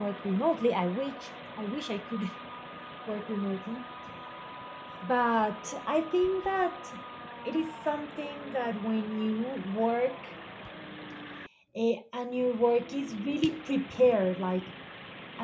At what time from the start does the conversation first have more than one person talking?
none

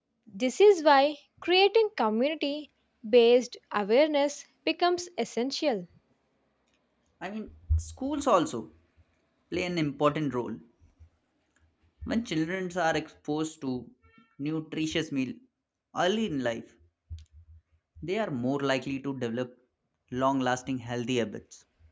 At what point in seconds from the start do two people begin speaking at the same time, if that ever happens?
none

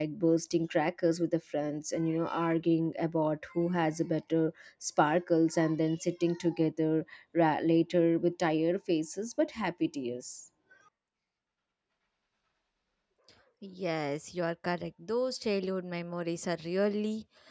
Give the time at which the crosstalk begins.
none

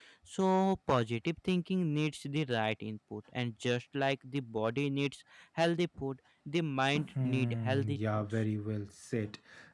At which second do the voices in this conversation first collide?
6.9 s

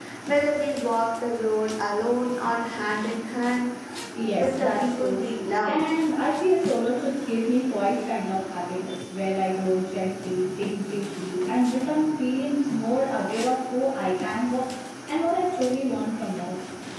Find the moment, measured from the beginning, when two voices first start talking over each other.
4.3 s

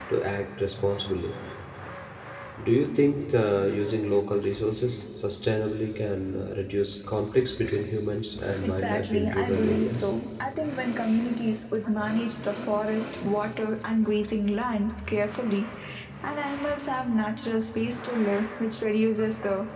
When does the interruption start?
8.6 s

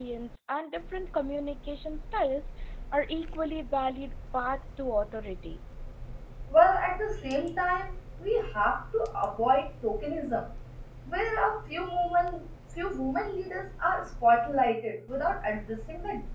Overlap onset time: none

